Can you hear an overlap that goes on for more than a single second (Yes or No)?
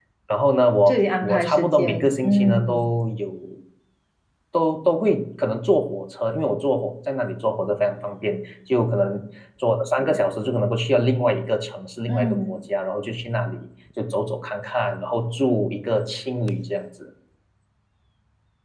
Yes